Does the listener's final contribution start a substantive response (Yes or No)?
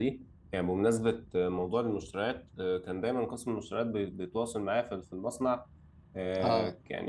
No